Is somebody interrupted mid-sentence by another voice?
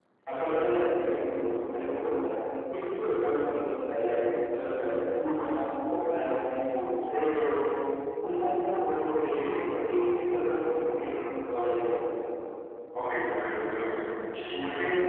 No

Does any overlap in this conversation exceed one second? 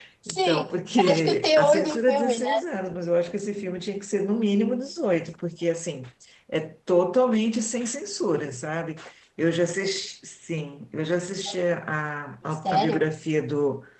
Yes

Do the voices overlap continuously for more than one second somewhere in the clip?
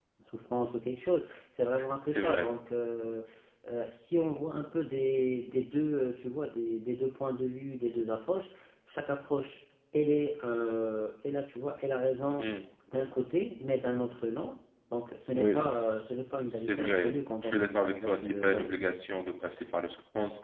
Yes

